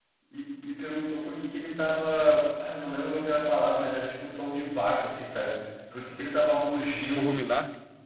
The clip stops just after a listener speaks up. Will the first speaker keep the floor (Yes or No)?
Yes